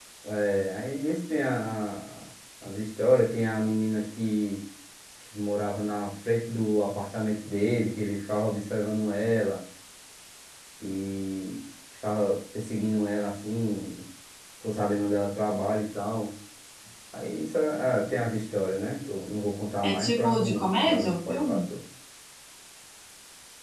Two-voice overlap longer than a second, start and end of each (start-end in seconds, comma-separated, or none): 19.8-21.6